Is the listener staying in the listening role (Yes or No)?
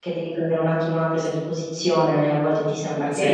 Yes